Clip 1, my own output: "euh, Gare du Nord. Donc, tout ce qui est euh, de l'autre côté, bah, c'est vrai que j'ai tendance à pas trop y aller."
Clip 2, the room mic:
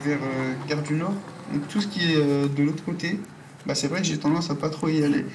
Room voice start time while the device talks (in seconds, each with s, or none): none